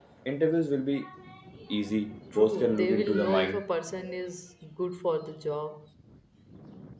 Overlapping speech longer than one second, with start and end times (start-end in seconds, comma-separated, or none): 2.4-3.6